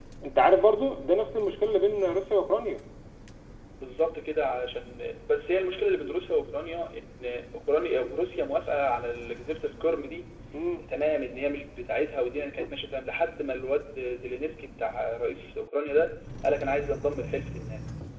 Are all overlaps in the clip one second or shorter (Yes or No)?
Yes